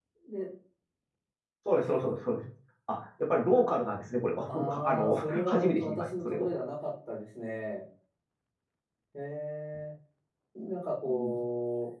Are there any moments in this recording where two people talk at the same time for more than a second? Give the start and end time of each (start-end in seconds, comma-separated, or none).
4.5-6.5